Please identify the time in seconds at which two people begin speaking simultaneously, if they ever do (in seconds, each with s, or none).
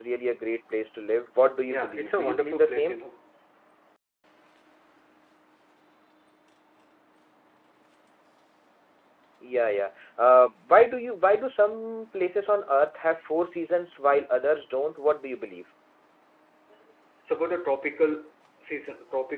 1.7 s